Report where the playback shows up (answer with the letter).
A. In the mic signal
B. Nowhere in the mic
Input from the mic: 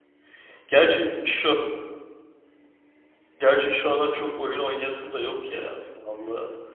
B